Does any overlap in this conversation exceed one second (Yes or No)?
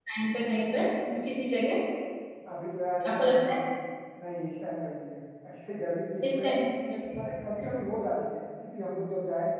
No